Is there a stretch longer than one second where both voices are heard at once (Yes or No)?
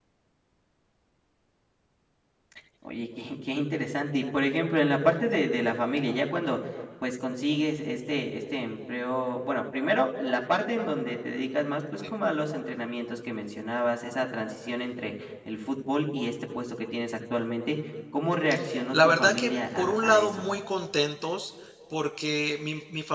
Yes